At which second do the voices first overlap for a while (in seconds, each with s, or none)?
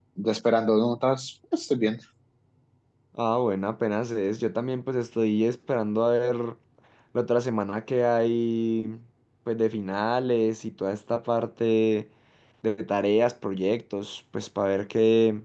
none